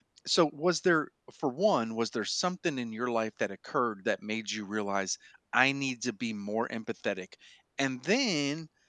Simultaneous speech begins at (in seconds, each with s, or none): none